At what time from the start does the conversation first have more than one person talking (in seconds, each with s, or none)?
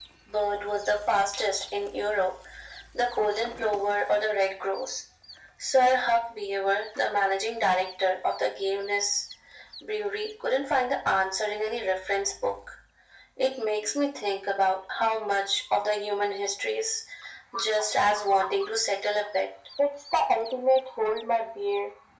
none